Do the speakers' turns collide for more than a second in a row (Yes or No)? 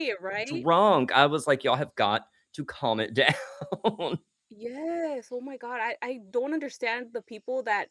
No